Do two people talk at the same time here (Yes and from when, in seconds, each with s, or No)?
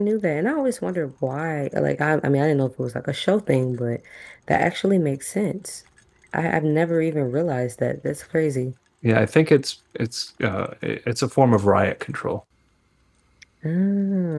No